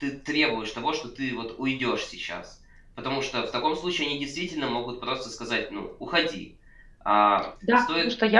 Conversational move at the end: taking over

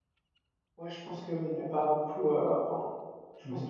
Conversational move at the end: listening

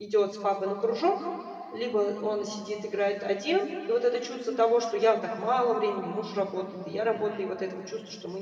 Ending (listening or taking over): listening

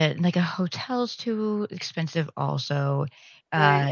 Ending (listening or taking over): taking over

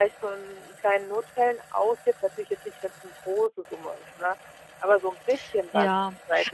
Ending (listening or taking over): taking over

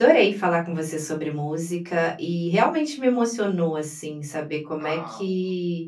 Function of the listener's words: listening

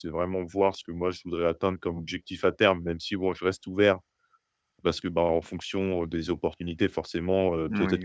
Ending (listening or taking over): listening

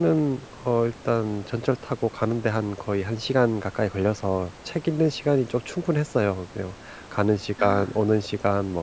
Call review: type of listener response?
listening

